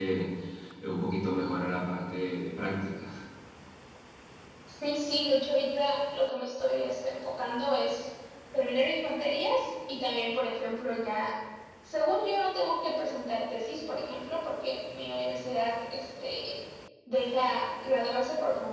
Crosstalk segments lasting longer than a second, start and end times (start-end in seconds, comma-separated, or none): none